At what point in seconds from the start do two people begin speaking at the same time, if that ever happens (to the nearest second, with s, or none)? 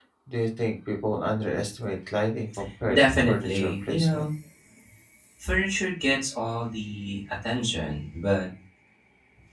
3 s